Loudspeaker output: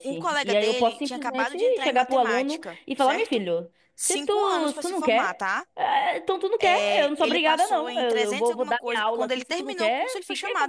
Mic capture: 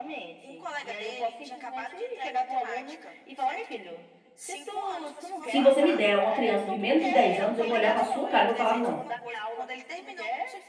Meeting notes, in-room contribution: present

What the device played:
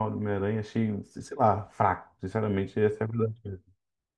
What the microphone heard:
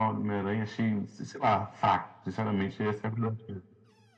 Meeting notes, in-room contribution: none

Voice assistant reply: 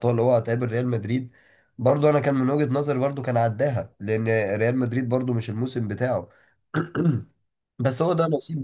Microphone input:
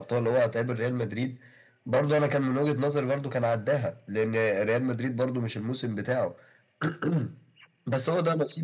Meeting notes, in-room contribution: none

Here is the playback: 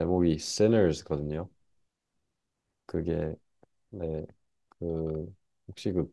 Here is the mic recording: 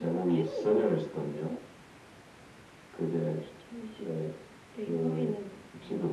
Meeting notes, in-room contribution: present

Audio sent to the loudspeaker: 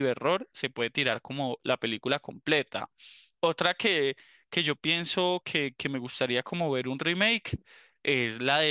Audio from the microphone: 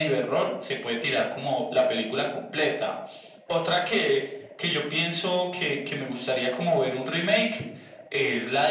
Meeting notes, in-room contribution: none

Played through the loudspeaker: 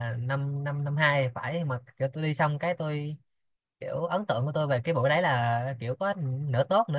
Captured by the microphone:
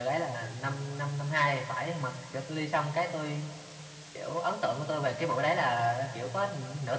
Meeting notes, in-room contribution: none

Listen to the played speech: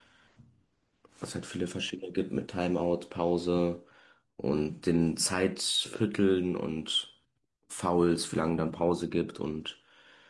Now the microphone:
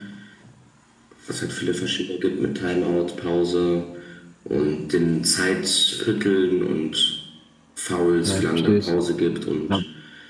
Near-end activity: present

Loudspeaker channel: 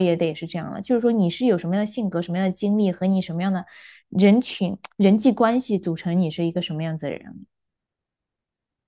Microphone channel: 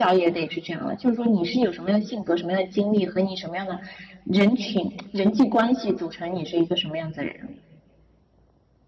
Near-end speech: none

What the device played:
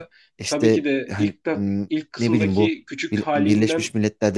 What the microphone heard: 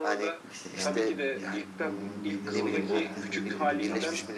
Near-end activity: present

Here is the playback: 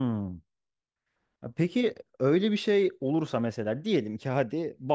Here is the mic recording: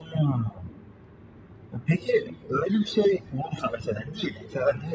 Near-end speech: none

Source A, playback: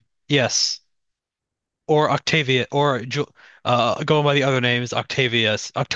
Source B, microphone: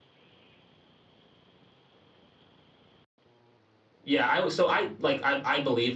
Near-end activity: present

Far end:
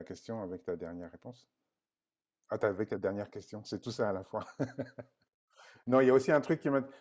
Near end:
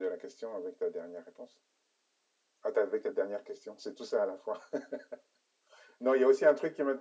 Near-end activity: none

